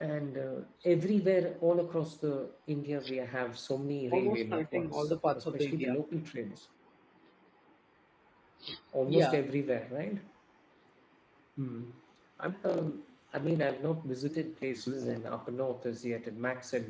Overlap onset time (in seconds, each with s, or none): 4.1 s